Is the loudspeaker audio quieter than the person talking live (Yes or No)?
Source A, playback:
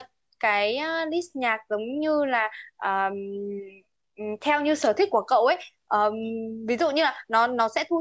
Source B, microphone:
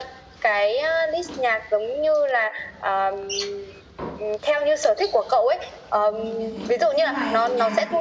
No